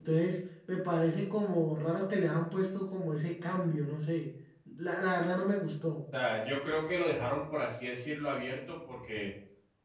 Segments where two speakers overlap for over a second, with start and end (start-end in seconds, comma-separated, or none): none